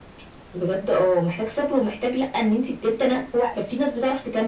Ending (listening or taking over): listening